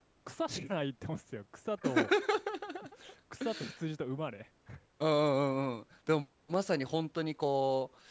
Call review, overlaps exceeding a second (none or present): none